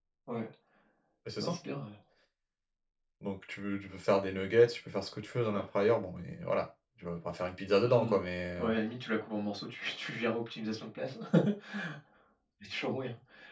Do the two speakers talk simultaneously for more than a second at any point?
No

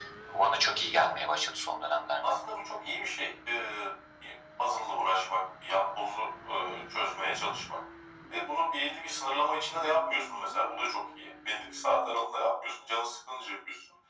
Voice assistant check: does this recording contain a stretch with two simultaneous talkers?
No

